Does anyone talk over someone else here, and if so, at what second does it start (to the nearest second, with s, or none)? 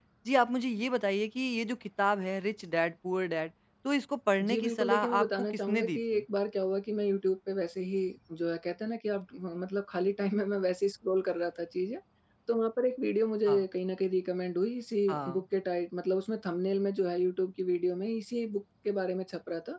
4 s